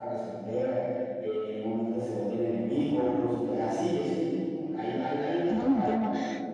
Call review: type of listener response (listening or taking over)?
taking over